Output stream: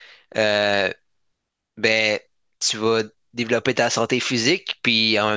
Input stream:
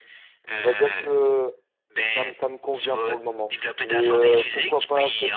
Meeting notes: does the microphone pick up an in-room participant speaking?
Yes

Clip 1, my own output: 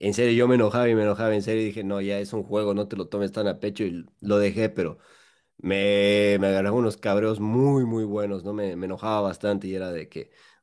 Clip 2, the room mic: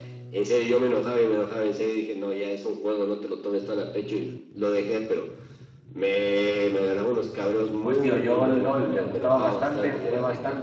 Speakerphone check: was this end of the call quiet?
No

